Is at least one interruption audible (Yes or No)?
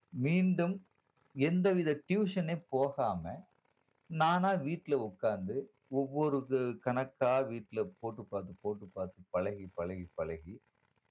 No